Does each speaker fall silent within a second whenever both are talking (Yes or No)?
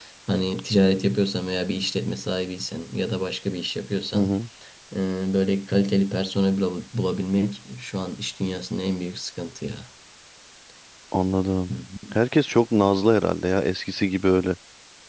Yes